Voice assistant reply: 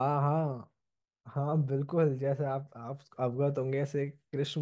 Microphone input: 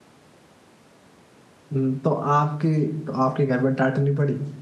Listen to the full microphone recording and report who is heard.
user only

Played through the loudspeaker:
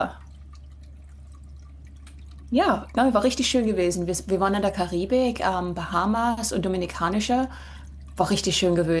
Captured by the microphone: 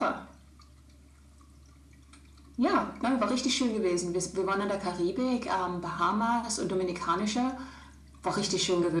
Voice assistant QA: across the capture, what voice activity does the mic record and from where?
echo only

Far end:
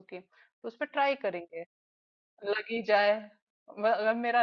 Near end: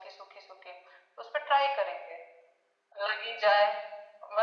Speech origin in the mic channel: echo only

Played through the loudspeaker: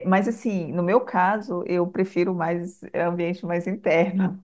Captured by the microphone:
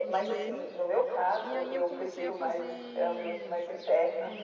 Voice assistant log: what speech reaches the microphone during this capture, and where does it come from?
both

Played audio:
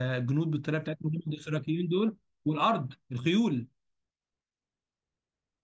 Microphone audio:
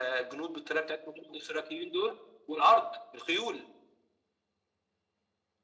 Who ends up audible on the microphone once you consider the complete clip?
echo only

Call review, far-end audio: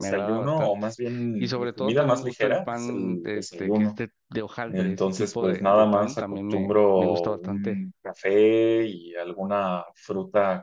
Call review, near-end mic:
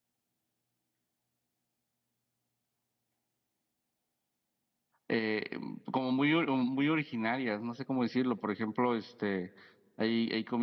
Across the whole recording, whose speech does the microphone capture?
user only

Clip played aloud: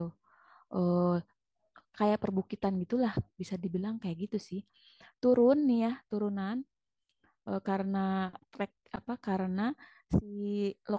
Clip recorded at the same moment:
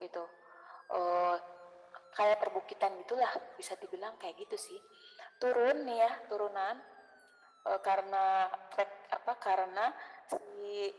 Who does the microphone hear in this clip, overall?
echo only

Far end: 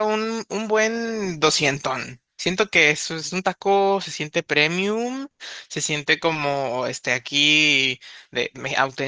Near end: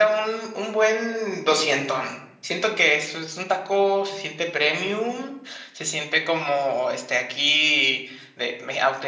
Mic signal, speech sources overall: echo only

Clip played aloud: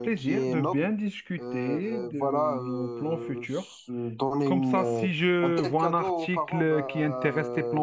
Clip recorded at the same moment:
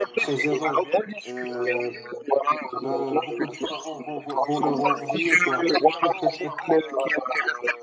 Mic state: both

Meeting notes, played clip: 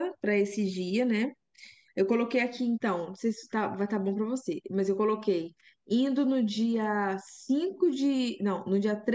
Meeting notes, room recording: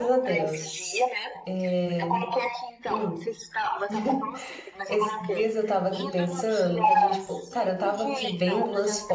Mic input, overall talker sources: both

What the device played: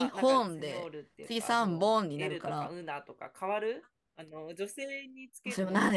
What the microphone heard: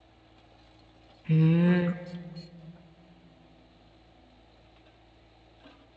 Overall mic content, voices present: user only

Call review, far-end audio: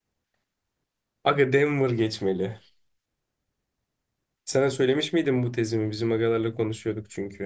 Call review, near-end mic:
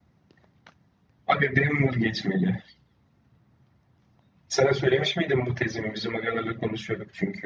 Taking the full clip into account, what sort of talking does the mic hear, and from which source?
echo only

